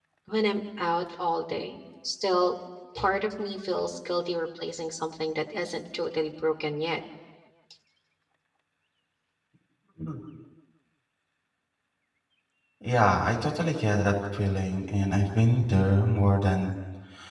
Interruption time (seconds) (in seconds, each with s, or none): none